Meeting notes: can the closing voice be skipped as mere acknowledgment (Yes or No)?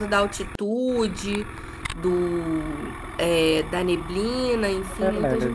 No